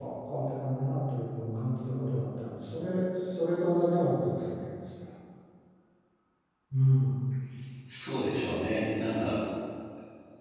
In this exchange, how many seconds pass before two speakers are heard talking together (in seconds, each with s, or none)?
none